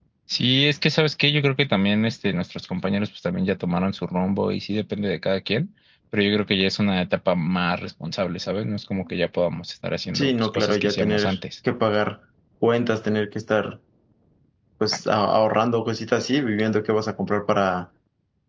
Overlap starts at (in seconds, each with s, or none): 10.1 s